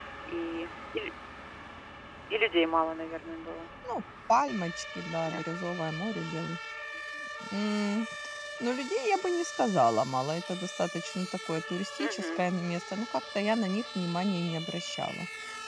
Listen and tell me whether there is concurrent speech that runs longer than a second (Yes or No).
No